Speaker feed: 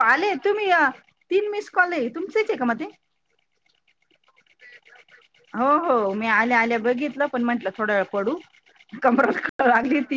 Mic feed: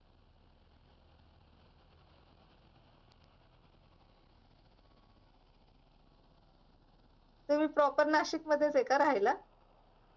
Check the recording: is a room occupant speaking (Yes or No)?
Yes